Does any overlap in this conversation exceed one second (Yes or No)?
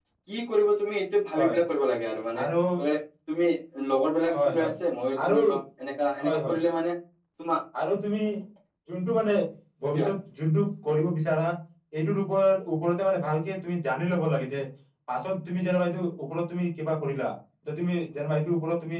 No